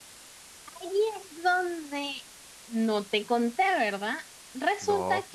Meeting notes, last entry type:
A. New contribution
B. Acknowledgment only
B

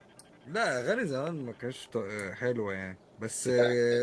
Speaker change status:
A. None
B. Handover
A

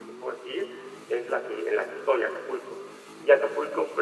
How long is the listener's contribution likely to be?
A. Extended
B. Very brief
B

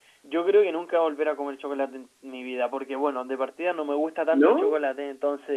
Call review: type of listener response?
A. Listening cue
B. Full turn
A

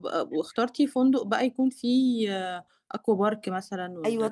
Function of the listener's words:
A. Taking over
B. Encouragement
A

